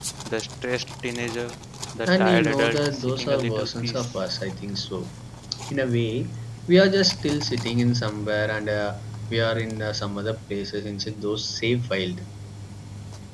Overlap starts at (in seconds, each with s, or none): 2.1 s